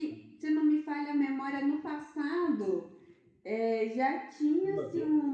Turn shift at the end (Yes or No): No